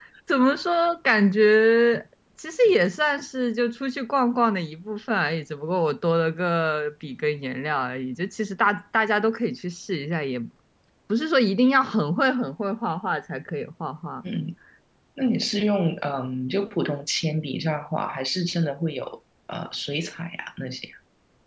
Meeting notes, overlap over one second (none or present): none